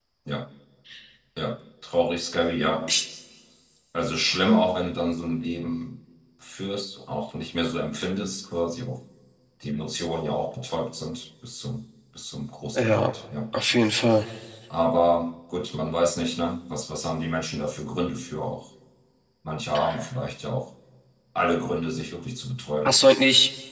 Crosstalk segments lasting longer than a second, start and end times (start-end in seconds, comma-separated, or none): none